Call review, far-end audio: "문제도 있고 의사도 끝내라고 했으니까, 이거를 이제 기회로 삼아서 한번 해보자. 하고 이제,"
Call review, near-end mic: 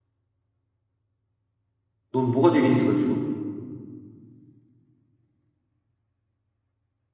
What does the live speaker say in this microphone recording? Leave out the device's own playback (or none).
넌 뭐가 제일 힘들어, 지금?